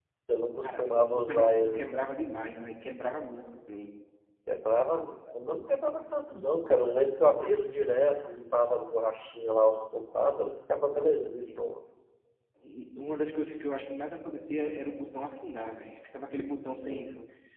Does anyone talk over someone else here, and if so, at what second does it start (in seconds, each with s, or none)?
0.6 s